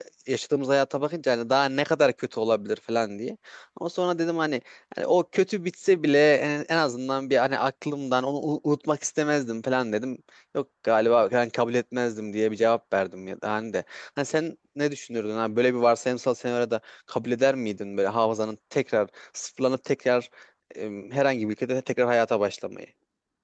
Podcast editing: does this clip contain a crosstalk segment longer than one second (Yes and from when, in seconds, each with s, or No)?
No